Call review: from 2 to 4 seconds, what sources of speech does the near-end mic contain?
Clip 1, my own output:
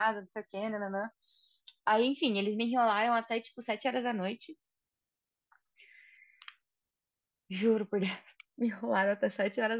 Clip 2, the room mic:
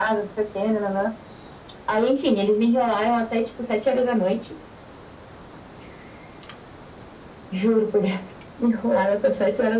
echo only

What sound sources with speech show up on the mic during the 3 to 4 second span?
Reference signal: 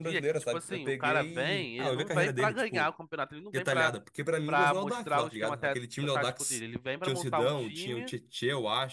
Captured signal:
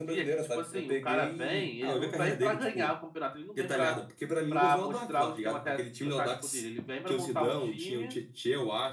echo only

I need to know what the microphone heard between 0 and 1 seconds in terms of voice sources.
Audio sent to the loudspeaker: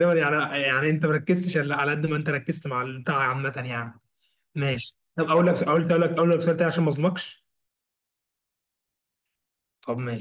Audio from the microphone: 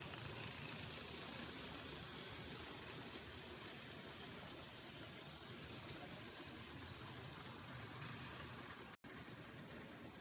neither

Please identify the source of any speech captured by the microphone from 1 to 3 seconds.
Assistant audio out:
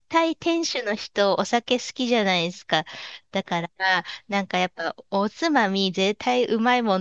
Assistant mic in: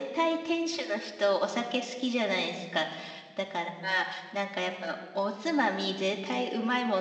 echo only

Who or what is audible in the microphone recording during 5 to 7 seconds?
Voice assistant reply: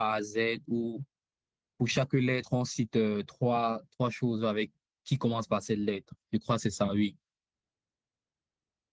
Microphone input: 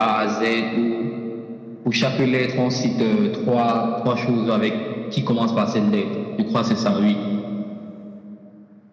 echo only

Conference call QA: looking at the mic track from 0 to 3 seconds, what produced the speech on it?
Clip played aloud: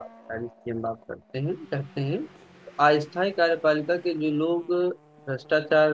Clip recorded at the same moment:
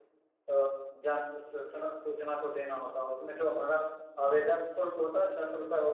user only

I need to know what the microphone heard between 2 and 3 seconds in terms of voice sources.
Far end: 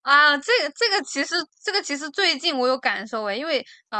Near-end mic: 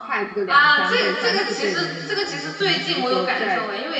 both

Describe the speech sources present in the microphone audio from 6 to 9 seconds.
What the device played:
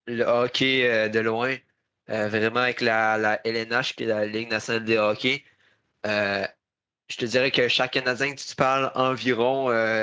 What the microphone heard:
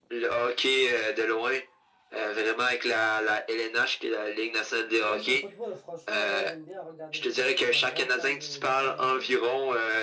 both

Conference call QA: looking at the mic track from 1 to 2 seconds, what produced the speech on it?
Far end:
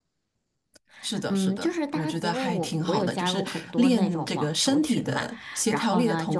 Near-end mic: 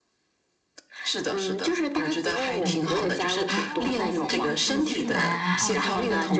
echo only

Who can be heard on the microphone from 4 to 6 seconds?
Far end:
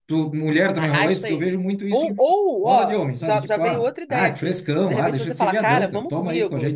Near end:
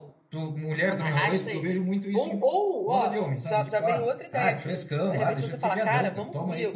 echo only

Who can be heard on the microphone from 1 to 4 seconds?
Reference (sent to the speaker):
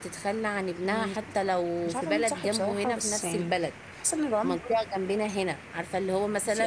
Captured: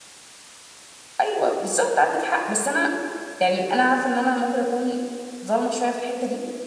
user only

